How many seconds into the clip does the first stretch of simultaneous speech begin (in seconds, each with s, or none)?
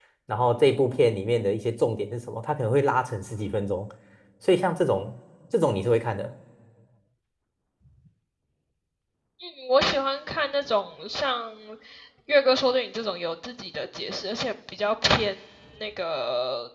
none